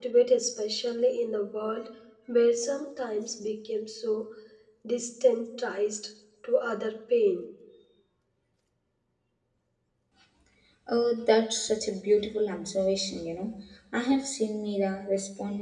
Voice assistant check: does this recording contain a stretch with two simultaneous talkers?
No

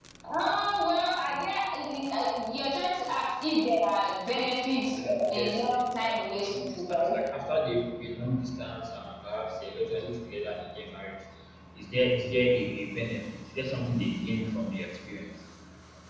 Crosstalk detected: Yes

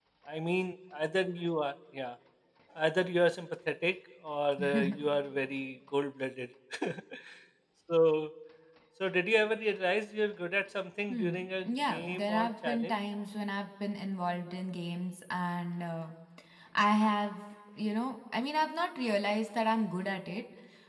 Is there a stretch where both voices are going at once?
Yes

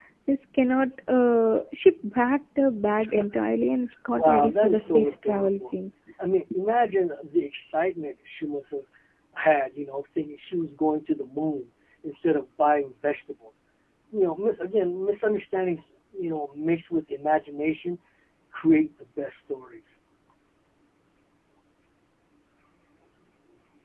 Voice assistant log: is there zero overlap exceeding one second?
No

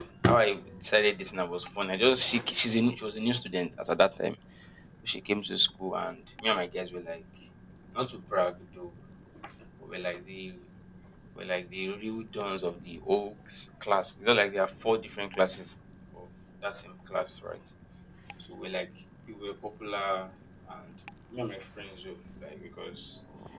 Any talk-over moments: No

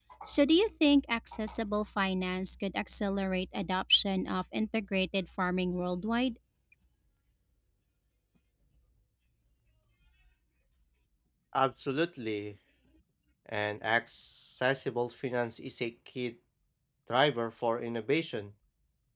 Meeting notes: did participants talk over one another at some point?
No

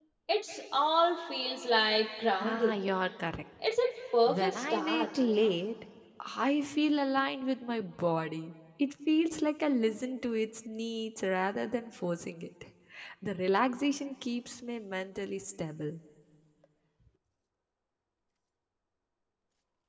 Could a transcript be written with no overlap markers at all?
No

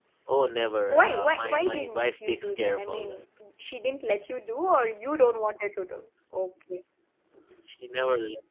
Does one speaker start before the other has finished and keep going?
Yes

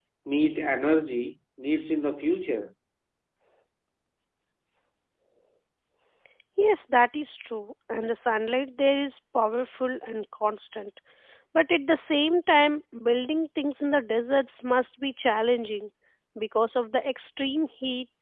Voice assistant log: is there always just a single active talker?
Yes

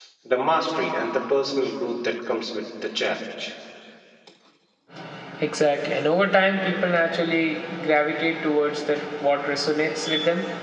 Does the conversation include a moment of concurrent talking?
No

